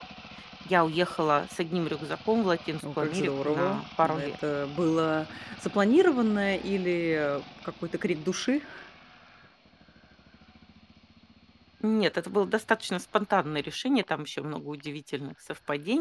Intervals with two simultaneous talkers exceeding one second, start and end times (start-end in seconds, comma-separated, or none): 3.0-4.3